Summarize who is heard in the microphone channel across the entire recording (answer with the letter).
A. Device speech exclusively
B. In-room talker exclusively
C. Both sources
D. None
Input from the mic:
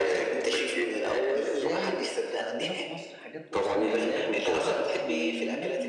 C